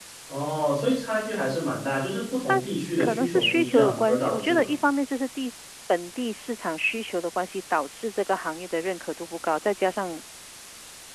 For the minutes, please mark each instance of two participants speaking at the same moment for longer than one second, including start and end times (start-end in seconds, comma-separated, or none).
3.0-4.7